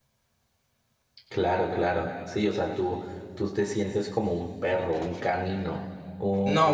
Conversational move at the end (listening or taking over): taking over